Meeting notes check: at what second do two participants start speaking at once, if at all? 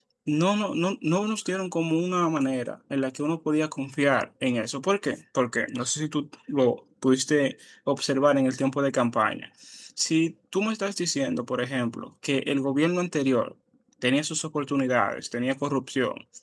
none

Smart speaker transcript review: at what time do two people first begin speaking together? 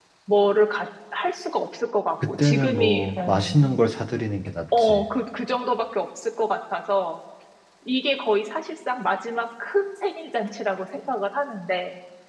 2.3 s

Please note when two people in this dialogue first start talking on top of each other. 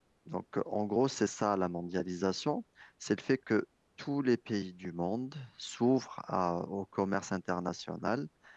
none

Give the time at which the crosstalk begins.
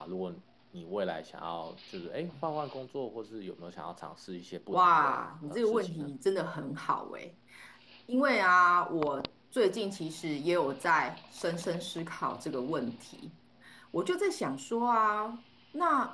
4.7 s

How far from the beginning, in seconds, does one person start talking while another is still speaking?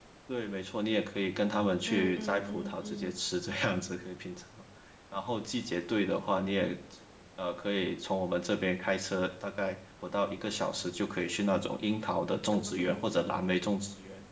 1.9 s

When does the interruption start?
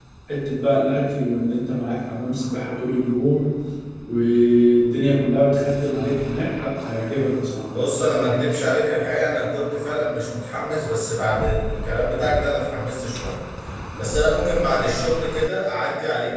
none

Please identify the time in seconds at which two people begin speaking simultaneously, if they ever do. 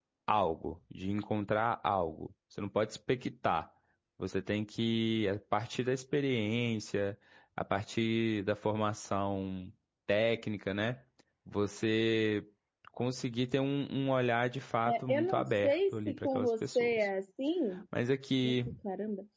14.9 s

